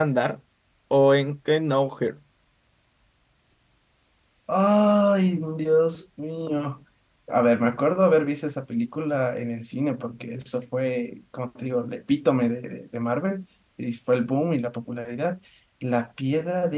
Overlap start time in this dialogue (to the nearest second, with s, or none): none